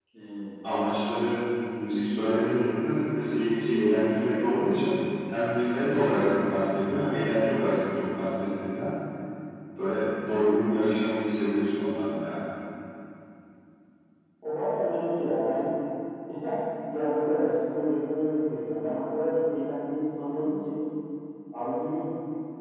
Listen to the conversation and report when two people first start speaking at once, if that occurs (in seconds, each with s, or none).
none